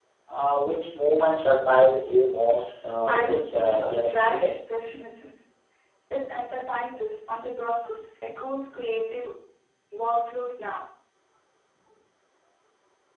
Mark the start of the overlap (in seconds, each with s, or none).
3.1 s